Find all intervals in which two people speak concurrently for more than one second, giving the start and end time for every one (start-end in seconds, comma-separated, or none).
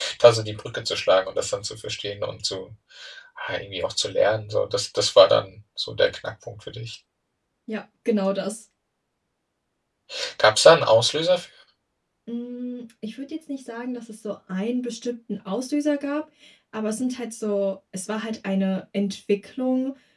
none